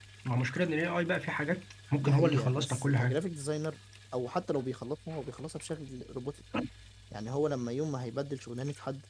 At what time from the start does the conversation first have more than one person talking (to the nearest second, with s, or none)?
2 s